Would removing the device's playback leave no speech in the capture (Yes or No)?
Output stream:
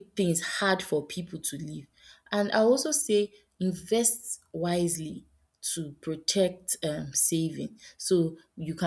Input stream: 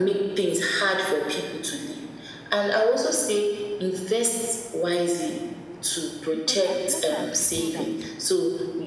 No